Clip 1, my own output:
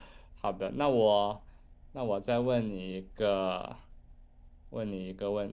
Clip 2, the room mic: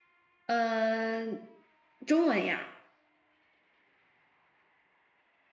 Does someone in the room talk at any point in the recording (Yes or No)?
Yes